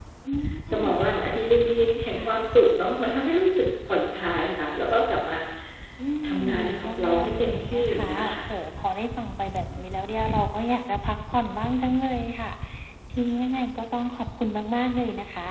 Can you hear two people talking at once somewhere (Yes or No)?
Yes